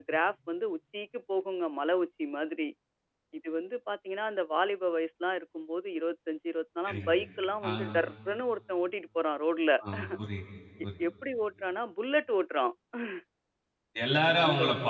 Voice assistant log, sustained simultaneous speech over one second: none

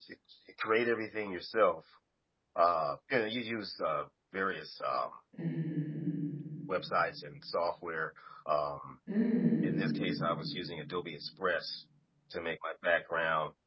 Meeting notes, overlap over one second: none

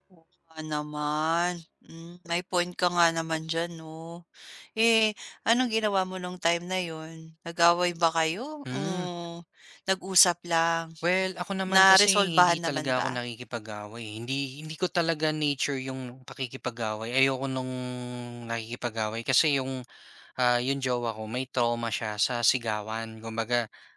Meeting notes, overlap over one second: present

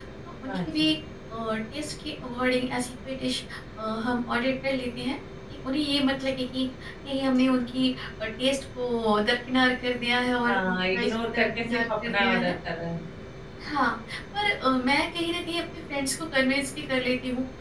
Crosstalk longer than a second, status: present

